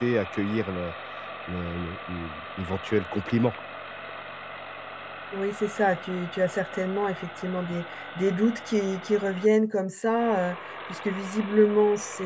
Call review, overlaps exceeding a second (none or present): none